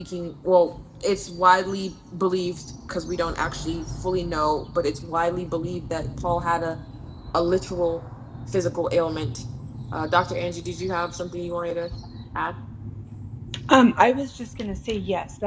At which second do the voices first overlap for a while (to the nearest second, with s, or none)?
none